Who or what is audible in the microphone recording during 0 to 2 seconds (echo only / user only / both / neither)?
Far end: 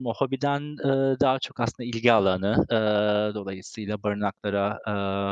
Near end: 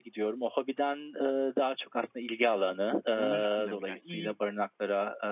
echo only